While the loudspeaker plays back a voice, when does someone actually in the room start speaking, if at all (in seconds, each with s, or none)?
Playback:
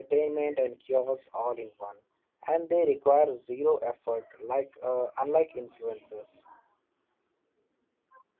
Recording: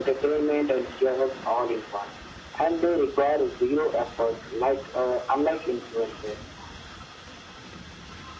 none